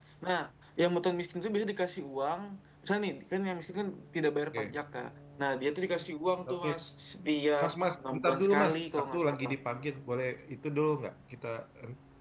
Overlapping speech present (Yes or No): Yes